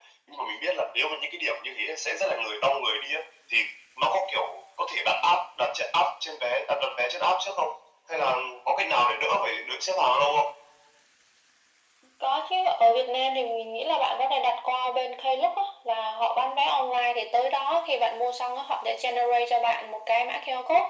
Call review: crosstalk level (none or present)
none